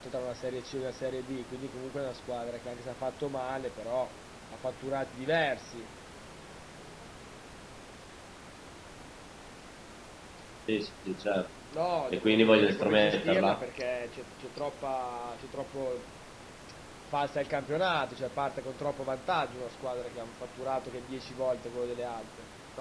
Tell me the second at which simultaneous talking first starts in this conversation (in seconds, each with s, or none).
12.1 s